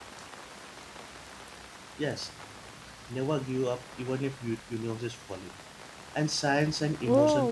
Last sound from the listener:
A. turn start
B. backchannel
A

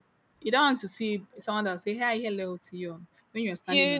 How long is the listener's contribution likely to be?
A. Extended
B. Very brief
A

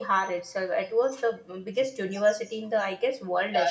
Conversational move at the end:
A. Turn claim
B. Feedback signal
A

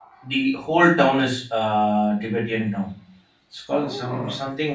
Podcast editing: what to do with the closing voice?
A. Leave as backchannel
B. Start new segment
A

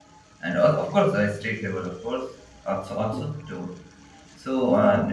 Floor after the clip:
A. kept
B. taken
A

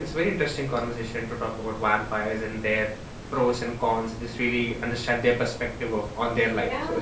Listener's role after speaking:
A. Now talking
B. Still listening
A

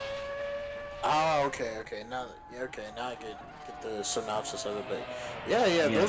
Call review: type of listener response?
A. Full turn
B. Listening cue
B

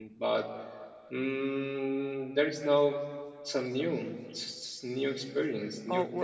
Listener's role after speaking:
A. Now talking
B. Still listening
A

